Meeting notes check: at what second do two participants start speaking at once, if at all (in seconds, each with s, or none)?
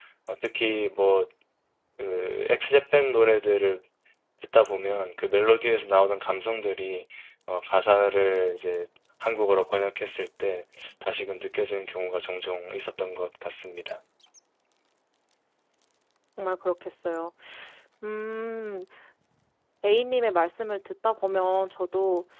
none